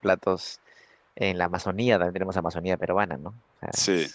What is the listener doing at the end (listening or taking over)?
listening